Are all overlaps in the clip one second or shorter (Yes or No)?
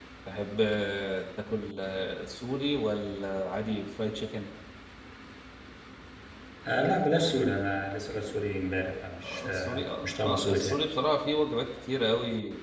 No